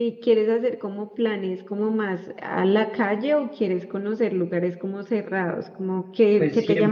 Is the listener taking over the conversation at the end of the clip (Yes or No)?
Yes